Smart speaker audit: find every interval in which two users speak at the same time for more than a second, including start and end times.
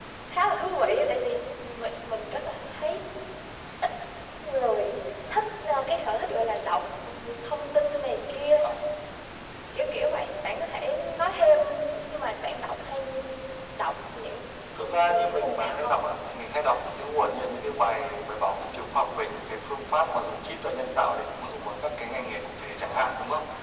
14.8-16.0

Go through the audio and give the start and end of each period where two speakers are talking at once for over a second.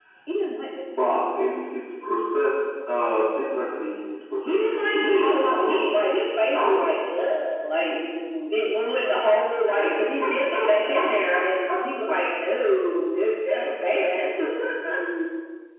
4.4-6.0

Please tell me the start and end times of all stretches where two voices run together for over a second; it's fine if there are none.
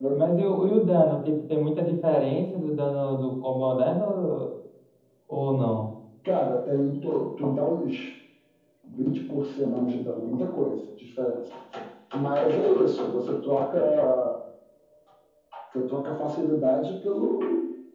none

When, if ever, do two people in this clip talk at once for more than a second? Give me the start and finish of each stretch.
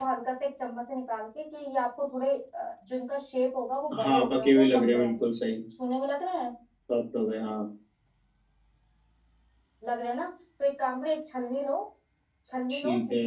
4.0-5.3

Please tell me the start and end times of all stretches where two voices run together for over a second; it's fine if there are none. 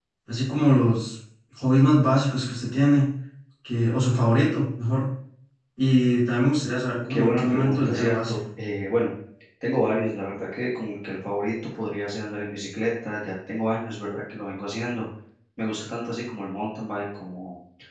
7.1-8.4

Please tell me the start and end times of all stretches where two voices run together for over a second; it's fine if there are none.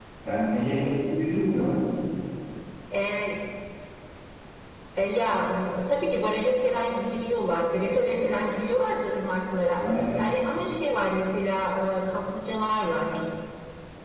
none

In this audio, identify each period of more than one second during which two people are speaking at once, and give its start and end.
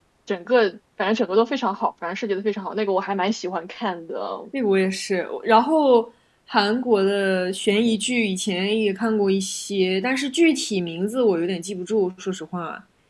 none

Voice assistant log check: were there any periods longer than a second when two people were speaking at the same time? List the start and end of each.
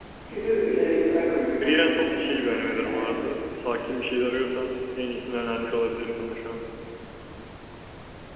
1.6-3.0

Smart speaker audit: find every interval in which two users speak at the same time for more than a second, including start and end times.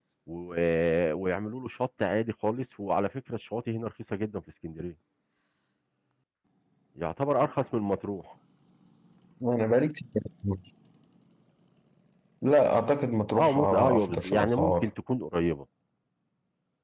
13.3-14.9

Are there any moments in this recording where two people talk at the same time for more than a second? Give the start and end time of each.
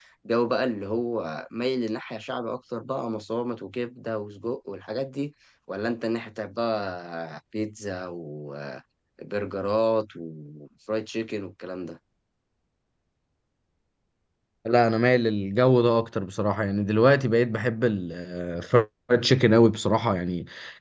none

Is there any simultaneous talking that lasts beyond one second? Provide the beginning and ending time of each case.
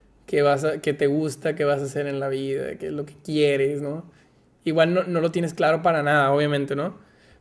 none

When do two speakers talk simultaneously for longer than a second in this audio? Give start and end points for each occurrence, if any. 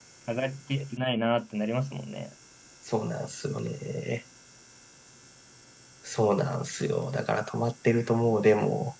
none

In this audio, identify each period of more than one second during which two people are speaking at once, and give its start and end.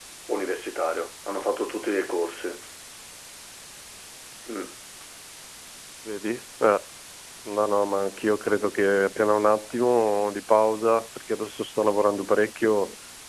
none

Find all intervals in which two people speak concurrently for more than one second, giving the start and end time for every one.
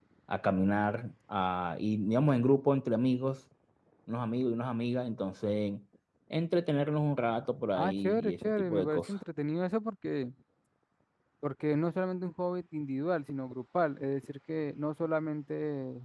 7.8-9.1

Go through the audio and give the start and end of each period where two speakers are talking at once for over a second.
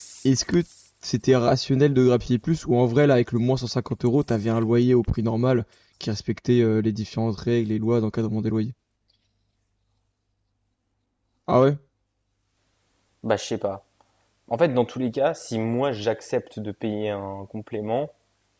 none

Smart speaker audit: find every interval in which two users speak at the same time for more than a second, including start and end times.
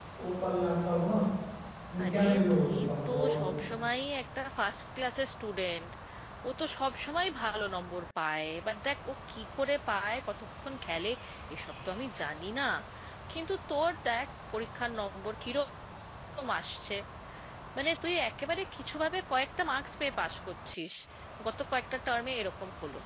2.0-3.5

